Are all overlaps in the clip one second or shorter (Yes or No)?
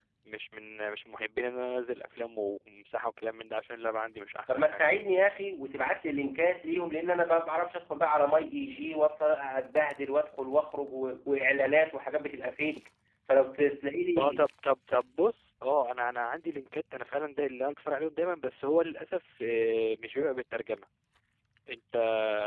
Yes